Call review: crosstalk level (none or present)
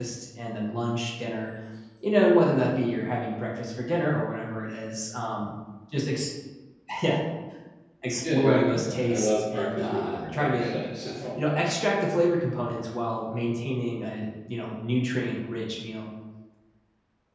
present